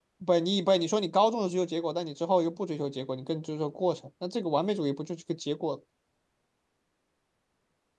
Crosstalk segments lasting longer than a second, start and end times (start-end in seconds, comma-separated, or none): none